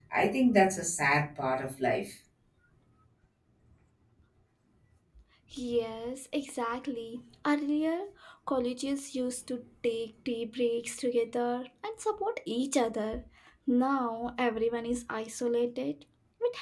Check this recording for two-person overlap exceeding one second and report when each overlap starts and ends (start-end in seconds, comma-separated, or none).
none